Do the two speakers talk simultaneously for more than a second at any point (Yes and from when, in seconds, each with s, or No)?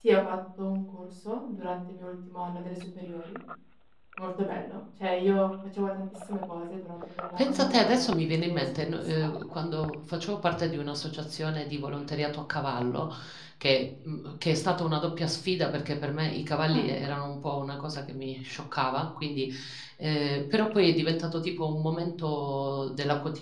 Yes, from 7.4 s